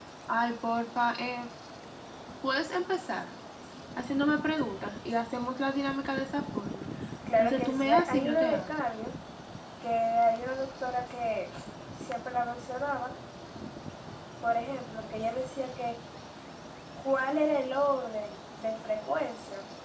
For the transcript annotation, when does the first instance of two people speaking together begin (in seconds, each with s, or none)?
7.4 s